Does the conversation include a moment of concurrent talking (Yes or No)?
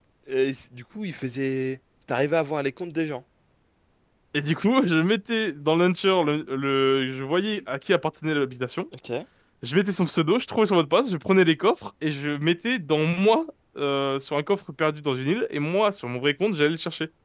No